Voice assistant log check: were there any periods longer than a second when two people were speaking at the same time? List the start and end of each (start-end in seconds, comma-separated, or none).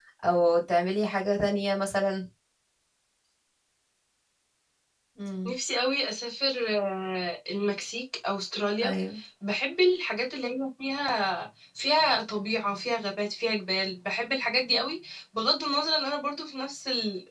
none